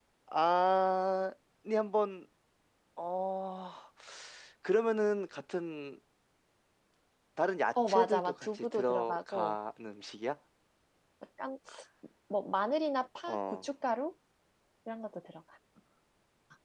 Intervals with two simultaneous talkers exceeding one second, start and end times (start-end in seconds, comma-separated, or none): 7.9-9.6